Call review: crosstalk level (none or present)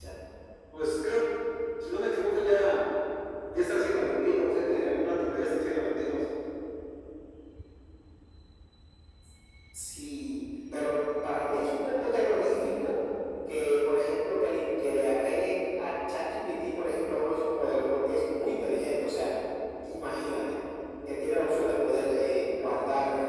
none